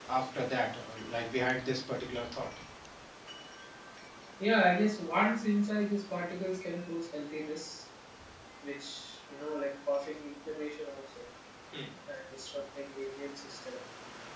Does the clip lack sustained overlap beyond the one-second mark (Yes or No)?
Yes